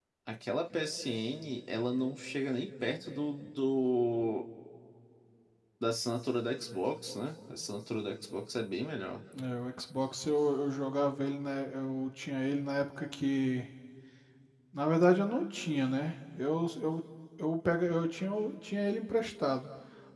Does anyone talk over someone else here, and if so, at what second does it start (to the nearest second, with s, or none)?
none